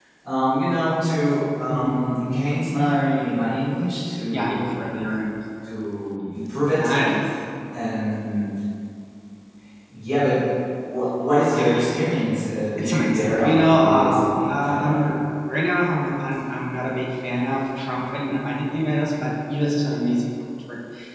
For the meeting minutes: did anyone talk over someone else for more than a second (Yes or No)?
Yes